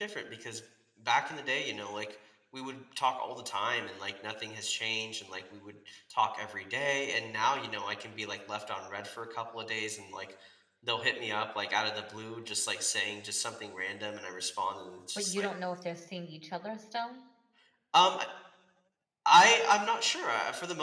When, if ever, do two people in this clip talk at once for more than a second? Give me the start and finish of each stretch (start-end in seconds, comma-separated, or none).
none